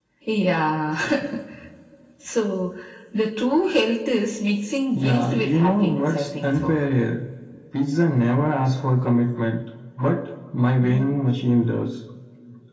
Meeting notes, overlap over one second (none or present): present